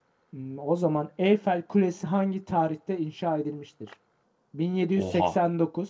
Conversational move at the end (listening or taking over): listening